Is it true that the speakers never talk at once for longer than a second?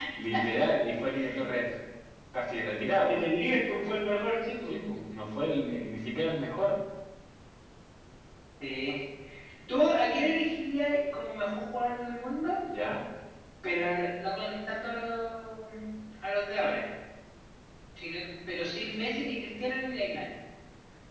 Yes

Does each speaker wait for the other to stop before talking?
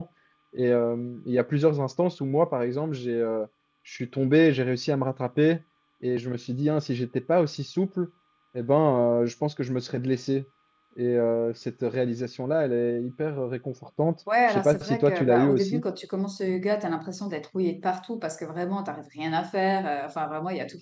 No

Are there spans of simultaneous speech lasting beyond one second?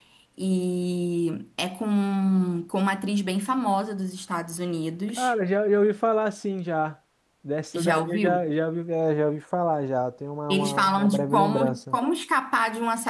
Yes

